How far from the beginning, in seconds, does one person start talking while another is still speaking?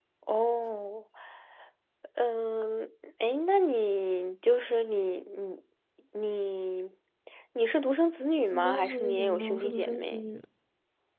8.5 s

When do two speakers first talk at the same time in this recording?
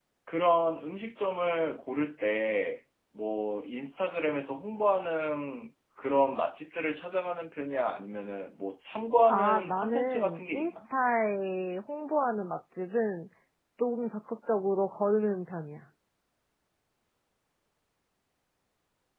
9.3 s

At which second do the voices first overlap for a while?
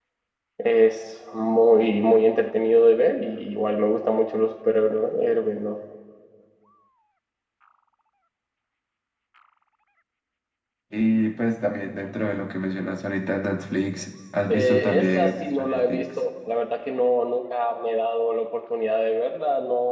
14.5 s

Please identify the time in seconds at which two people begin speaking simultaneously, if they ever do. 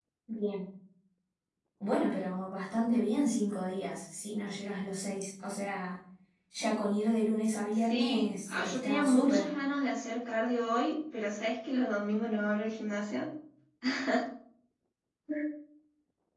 7.7 s

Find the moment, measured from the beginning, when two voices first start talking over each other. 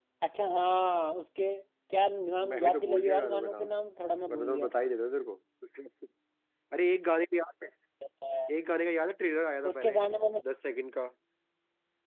2.4 s

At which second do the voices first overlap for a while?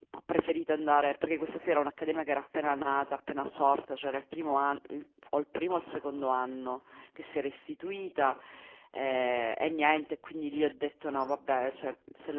none

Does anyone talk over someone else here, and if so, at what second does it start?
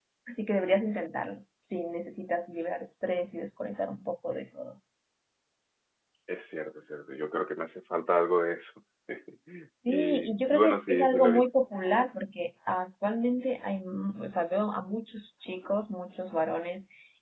9.9 s

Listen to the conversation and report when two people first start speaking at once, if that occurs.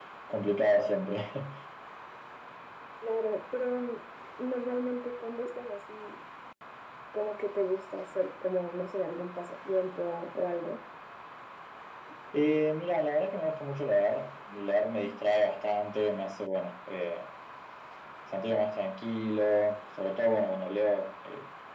none

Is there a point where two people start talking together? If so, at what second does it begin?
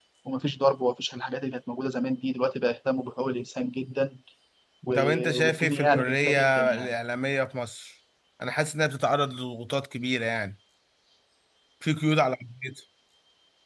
5.0 s

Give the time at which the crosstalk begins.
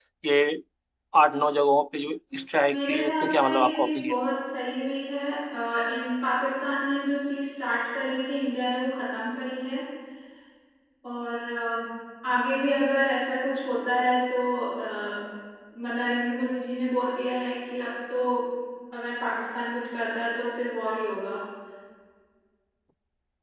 2.7 s

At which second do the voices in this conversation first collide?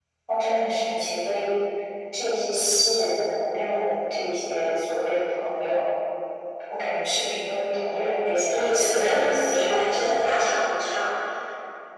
8.5 s

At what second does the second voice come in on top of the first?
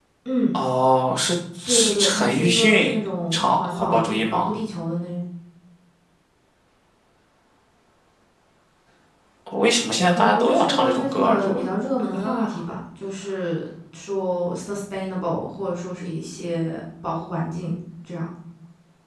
1.7 s

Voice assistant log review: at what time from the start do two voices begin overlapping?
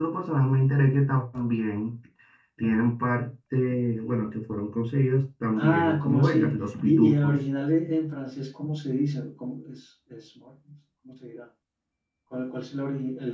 5.6 s

